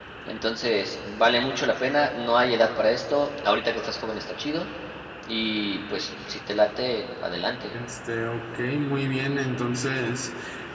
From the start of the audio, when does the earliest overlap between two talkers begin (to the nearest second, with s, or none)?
none